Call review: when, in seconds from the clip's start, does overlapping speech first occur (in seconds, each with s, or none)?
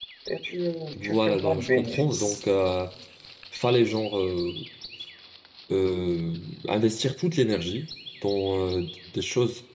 1.0 s